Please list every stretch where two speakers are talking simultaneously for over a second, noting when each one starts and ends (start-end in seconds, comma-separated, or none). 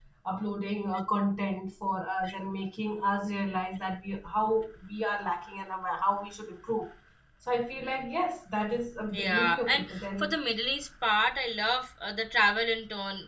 9.1-10.4